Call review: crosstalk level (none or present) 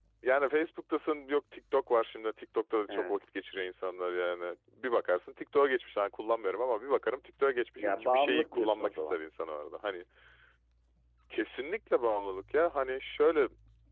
present